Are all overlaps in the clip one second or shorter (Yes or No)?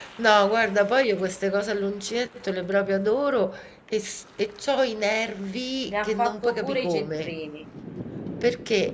No